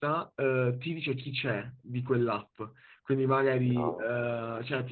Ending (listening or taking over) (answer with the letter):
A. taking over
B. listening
B